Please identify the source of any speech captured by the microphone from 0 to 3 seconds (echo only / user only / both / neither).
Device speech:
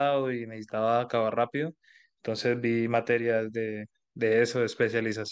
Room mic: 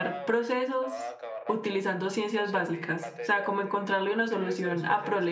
both